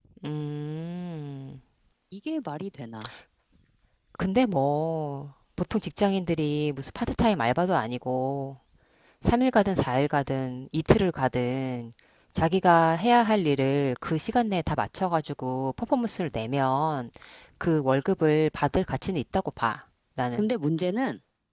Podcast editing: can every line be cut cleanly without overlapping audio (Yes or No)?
Yes